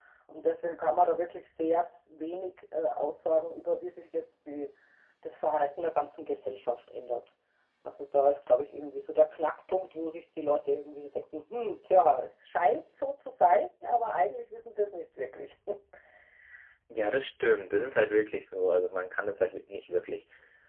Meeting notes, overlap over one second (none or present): none